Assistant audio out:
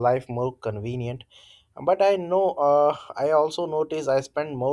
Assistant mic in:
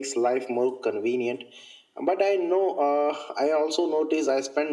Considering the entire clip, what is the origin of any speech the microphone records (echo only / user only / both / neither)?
echo only